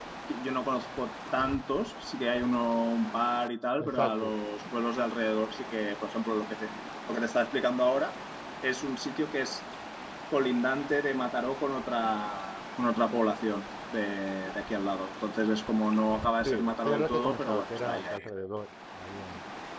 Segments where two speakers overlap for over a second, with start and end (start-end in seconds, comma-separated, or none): 16.4-18.2